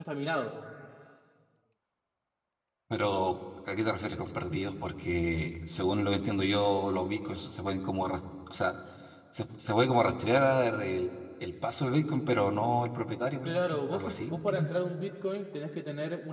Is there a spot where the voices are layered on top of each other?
Yes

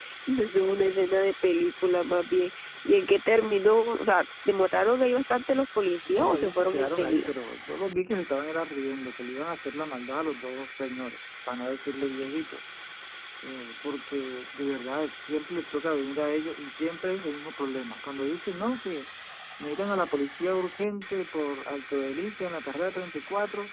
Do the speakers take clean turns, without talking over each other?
No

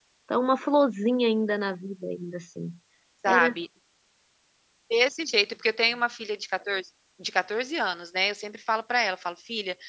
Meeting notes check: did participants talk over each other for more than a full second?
No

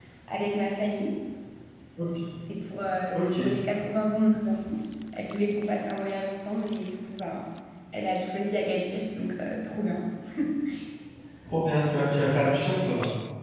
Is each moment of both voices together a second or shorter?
Yes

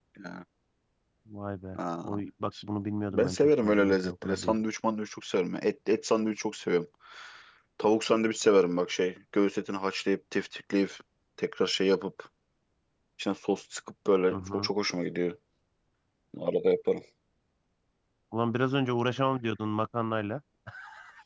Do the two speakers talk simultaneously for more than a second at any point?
Yes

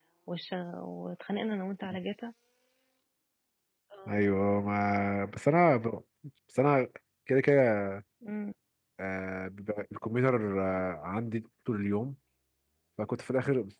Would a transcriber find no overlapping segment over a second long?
Yes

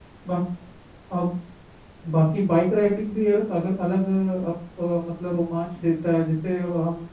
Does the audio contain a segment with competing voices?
No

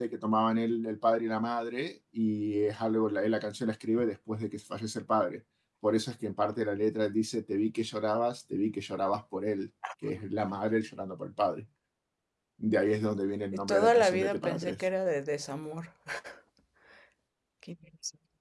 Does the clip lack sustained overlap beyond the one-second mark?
No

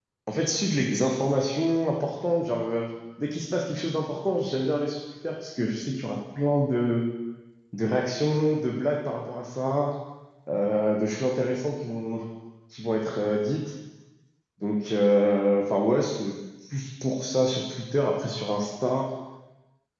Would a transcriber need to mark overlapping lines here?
No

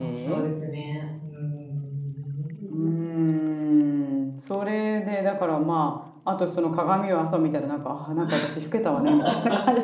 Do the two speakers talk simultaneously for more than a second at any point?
No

